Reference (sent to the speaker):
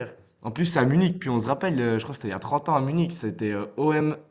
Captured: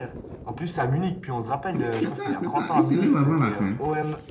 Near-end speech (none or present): present